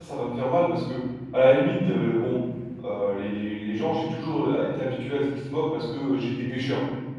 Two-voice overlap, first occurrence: none

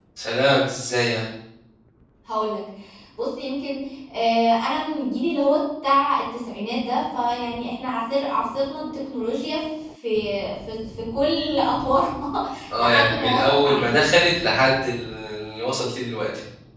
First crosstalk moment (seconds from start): 12.8 s

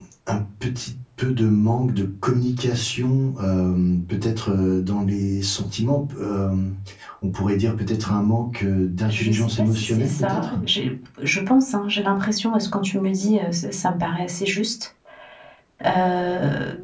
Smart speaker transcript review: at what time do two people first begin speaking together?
9.1 s

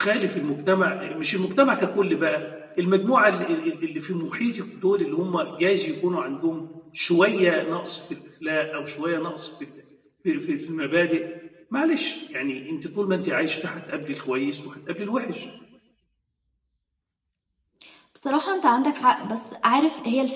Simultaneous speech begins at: none

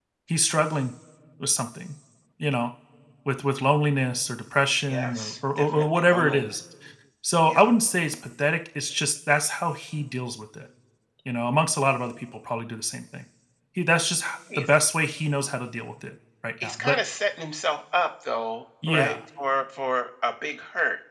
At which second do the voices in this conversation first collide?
4.8 s

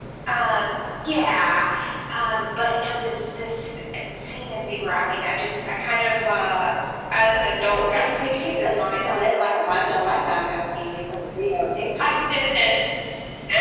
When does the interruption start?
7.7 s

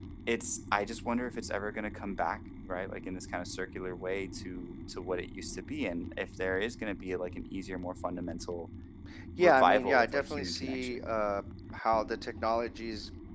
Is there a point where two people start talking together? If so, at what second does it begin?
9.4 s

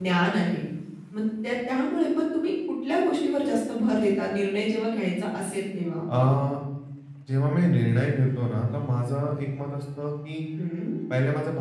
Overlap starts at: none

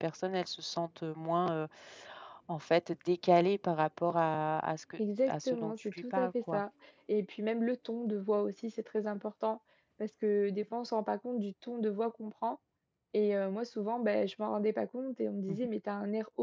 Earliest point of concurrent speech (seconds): 5.3 s

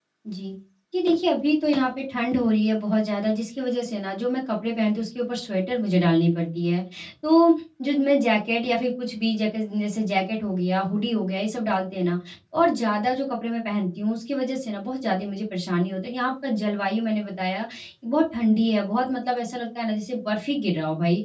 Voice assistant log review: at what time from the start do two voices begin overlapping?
none

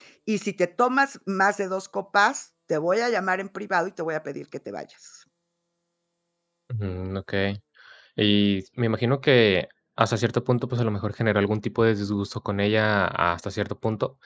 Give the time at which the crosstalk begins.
none

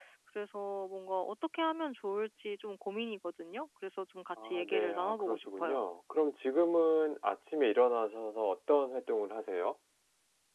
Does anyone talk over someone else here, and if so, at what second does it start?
4.4 s

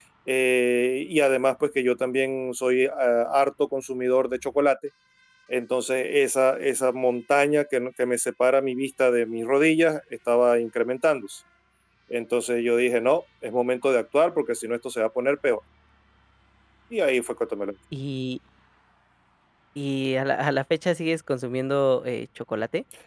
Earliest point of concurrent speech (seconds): none

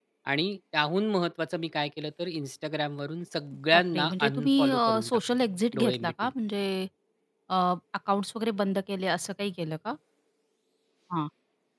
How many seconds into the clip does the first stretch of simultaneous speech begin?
3.7 s

